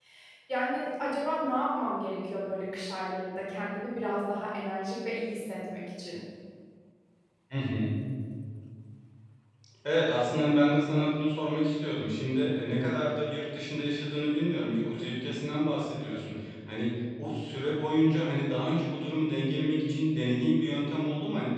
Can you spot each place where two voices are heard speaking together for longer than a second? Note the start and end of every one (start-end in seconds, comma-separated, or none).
none